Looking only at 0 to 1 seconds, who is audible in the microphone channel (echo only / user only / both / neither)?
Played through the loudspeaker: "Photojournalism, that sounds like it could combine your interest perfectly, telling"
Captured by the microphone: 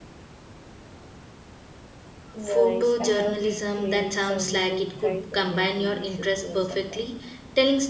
neither